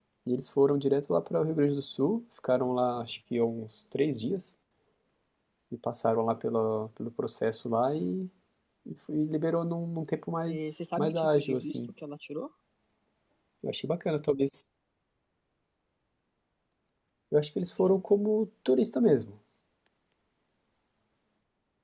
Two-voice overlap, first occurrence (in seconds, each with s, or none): 10.5 s